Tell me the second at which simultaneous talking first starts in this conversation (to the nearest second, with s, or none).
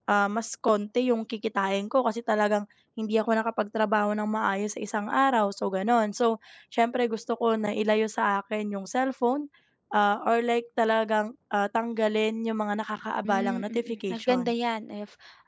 13 s